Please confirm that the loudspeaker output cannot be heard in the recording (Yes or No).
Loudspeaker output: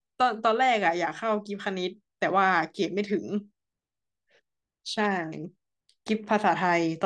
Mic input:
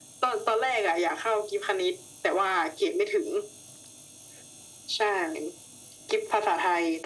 No